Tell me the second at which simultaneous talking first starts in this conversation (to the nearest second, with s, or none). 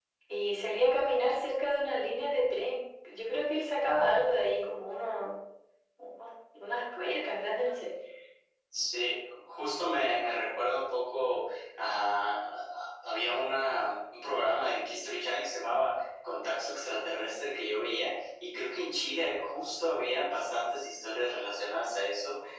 none